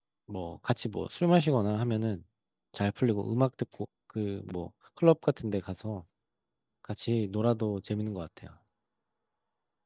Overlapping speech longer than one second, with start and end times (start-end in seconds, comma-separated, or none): none